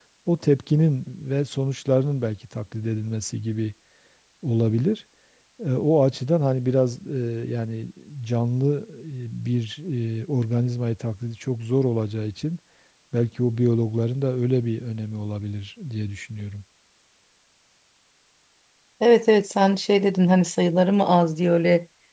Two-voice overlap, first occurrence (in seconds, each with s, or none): none